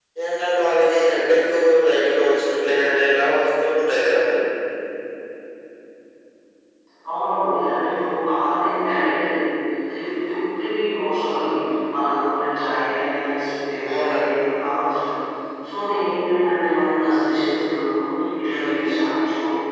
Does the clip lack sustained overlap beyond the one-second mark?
Yes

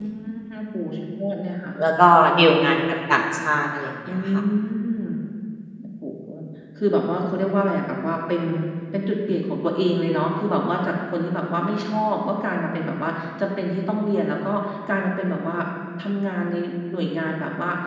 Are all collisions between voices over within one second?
Yes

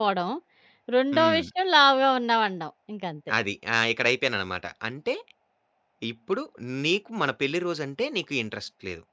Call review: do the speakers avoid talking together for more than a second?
Yes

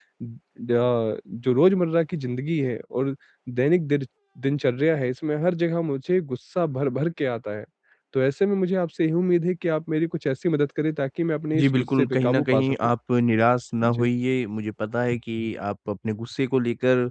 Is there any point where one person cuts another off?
Yes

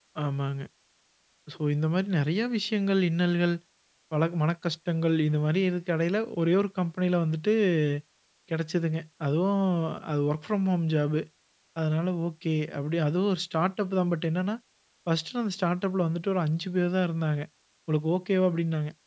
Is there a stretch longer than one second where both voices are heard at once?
No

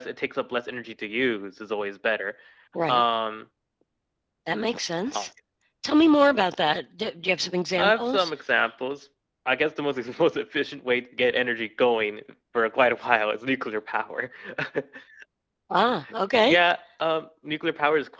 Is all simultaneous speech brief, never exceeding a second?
Yes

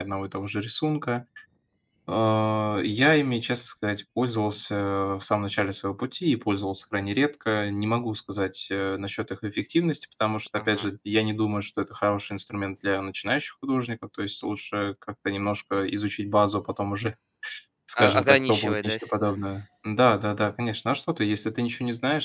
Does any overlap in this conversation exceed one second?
Yes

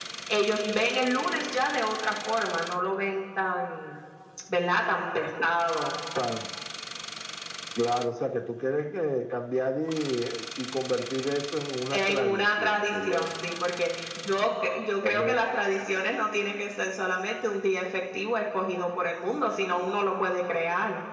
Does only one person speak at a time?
No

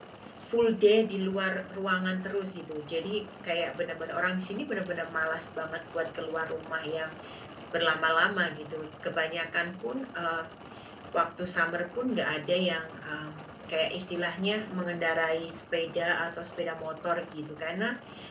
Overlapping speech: No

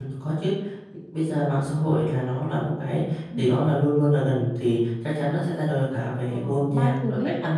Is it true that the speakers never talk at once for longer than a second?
No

